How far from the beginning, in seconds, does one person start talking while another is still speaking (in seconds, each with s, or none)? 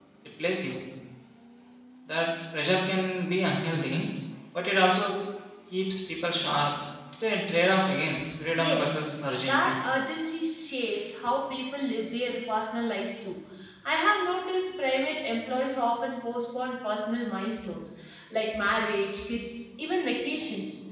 8.5 s